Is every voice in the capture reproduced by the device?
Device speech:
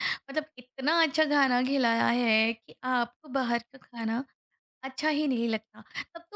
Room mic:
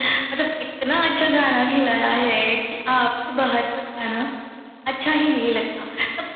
Yes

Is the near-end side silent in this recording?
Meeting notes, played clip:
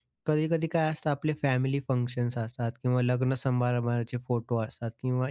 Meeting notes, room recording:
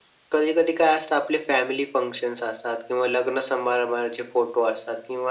Yes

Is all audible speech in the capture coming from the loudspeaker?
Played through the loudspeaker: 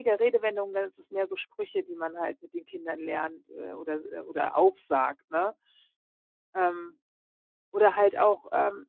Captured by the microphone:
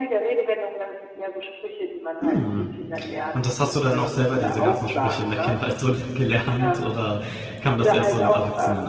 No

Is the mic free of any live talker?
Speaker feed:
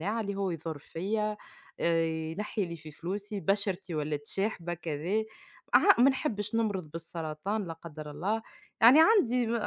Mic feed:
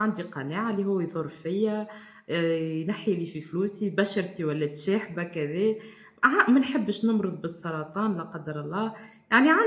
Yes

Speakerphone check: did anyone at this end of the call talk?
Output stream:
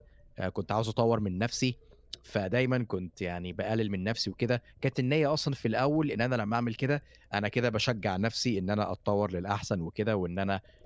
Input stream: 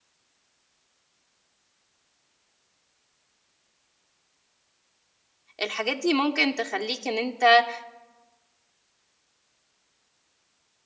Yes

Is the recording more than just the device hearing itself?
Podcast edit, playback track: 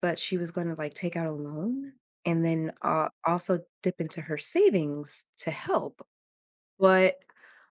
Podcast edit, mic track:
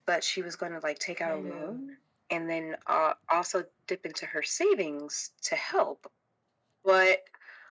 Yes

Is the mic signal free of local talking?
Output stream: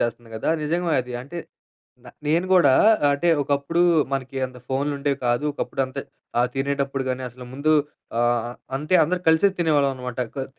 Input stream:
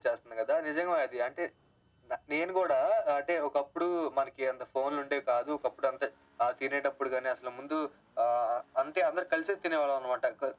Yes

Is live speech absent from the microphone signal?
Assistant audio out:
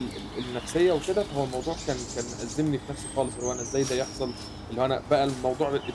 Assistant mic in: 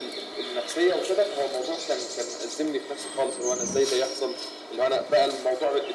Yes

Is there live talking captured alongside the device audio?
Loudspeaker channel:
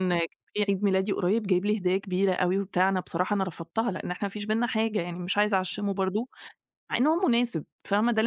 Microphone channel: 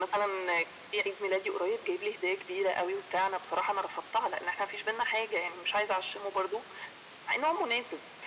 No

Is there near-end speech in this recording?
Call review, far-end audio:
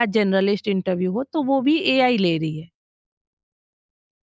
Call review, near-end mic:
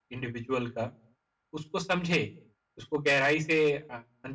Yes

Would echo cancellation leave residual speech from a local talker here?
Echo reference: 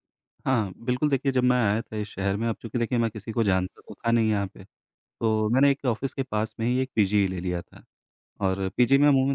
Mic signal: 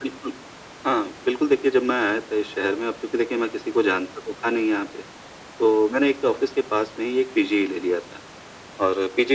No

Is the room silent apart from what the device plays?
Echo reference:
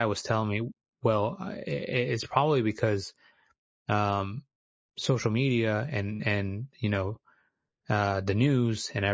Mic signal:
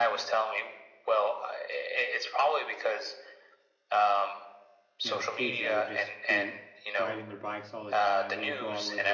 No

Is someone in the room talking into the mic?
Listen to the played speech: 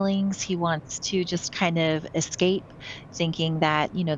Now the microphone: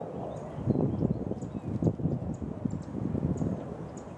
No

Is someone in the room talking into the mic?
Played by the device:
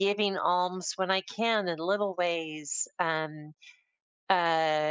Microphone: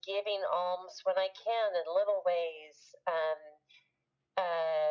No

